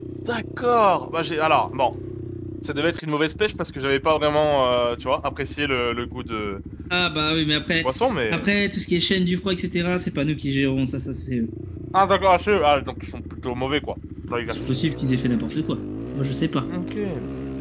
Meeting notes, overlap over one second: none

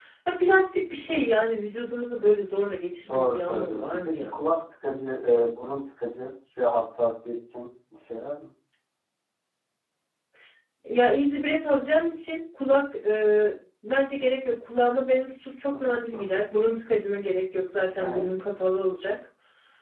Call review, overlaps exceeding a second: present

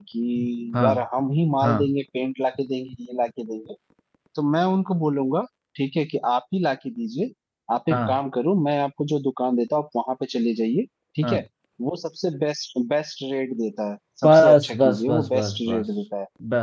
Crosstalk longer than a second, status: present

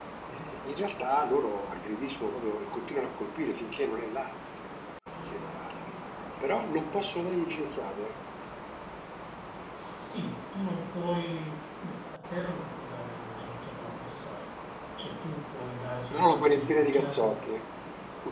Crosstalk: present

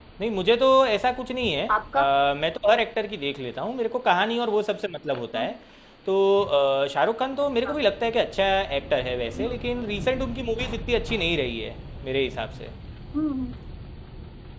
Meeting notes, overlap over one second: none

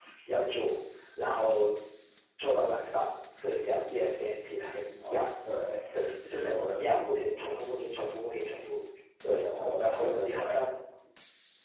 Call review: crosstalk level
present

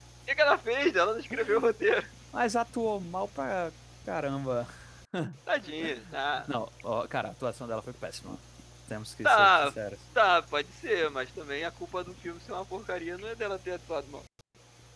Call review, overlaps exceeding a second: none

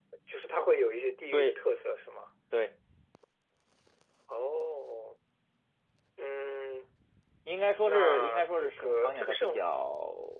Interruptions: present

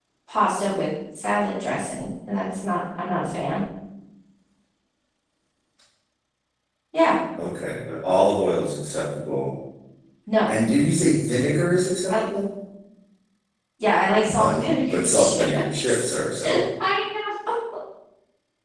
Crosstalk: present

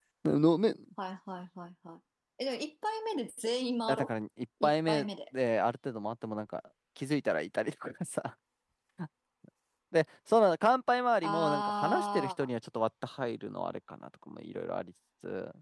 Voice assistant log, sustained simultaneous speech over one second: present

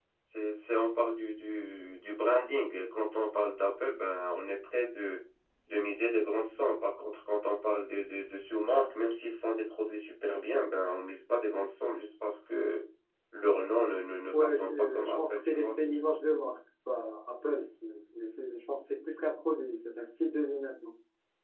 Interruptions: present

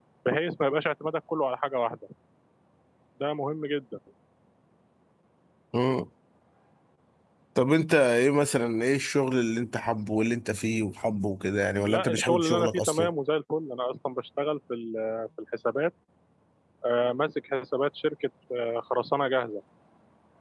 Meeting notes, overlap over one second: present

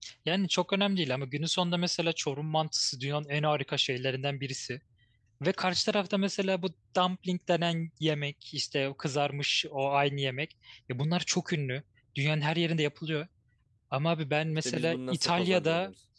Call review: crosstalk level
present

